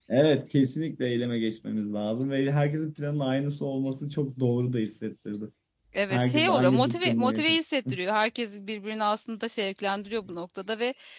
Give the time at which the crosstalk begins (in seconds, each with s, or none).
6.1 s